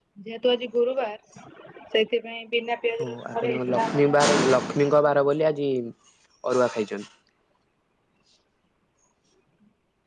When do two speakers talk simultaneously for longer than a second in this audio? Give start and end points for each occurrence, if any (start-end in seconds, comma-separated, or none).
3.0-4.3